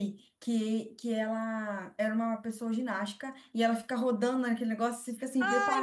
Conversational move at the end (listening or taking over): taking over